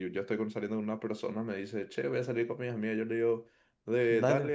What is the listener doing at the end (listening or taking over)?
listening